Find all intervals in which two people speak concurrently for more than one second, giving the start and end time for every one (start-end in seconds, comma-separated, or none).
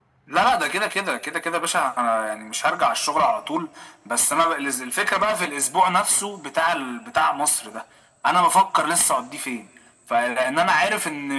none